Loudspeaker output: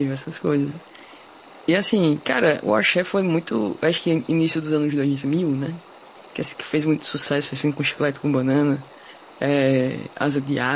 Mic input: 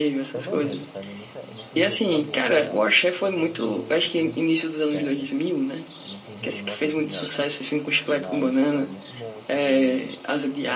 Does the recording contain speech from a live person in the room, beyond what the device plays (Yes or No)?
Yes